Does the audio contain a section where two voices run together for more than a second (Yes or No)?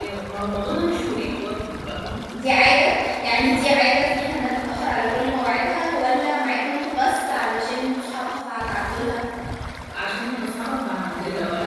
No